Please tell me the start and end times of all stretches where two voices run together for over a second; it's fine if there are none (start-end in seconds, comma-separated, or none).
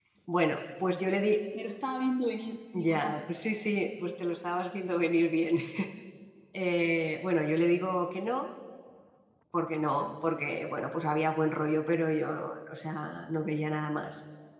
none